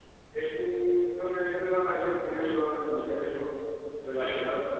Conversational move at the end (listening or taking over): listening